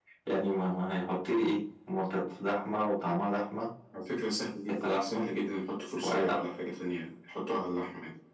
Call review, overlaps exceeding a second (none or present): none